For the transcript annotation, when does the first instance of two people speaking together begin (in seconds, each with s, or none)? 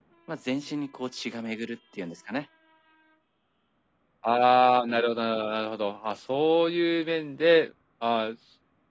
none